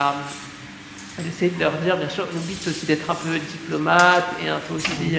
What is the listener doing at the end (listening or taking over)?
listening